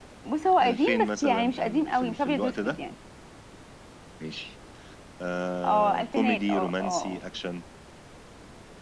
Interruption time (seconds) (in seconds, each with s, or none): 0.6 s